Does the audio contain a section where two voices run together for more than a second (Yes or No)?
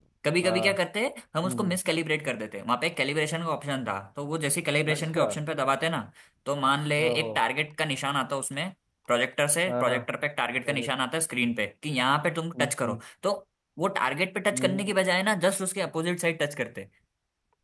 No